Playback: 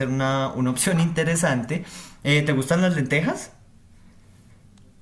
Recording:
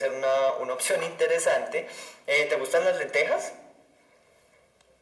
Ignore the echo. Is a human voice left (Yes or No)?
No